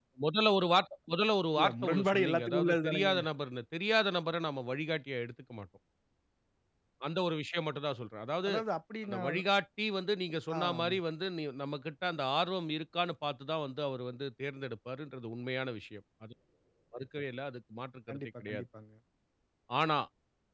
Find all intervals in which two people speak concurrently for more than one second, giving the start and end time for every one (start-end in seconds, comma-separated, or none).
1.6-3.1